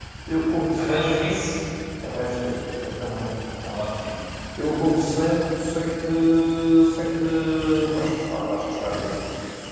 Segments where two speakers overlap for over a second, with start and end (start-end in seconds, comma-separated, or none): none